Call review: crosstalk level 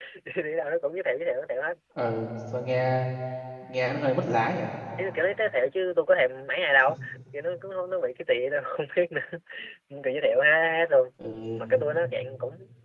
none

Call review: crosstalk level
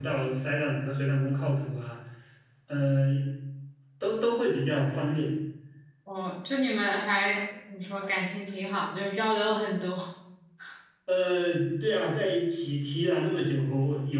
none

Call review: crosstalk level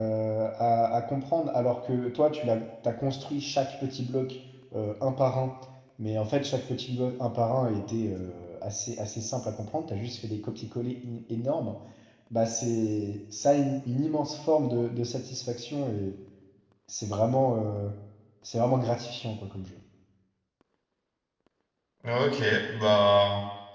none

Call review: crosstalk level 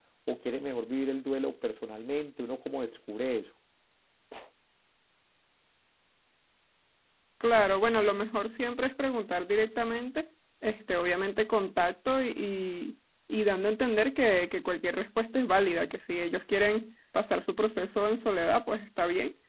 none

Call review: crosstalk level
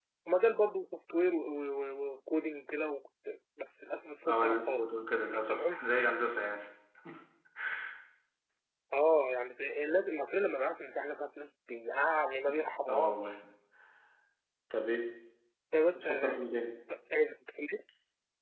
present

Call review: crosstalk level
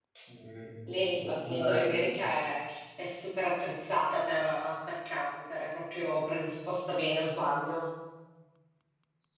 present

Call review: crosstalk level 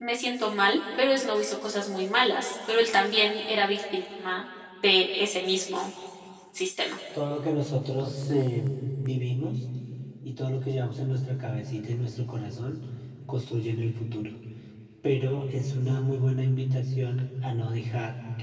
none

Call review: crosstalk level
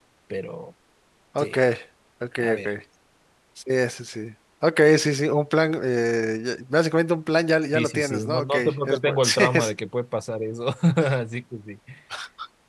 present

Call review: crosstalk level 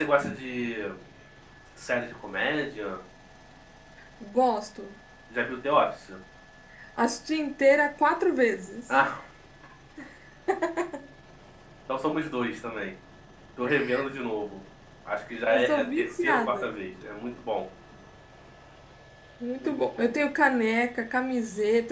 present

